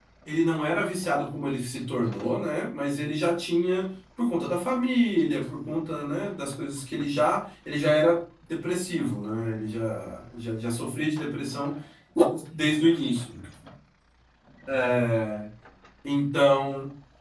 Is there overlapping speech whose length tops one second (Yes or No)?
No